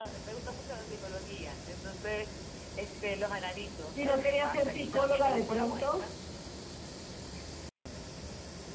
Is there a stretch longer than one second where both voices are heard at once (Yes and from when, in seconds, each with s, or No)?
Yes, from 3.9 s